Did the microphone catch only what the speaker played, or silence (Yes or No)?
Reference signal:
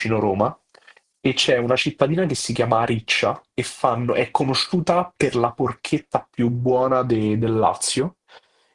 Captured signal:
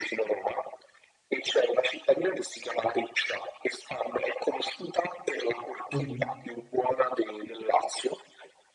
No